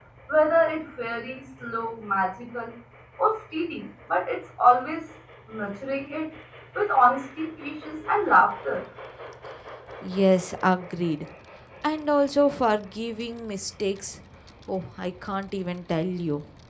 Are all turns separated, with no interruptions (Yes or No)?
Yes